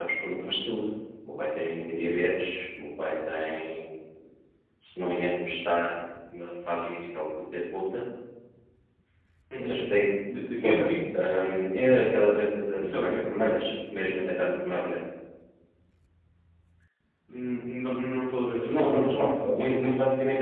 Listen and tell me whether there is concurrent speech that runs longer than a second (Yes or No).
Yes